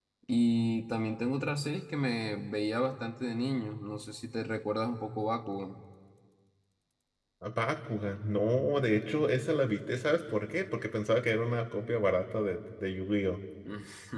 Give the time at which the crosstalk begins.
none

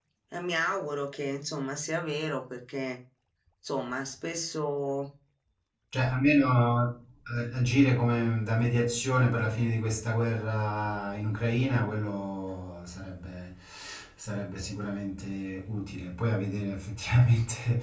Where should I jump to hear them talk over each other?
none

